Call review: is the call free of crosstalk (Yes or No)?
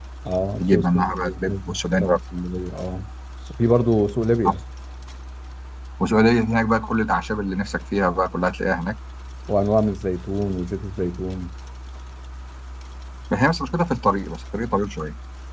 No